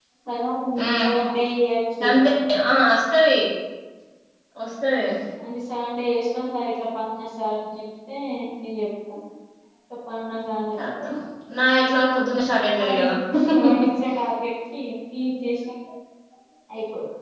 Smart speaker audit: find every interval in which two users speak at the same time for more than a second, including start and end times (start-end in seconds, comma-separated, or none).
none